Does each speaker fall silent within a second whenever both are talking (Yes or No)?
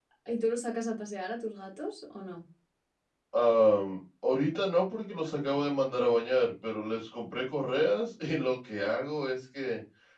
Yes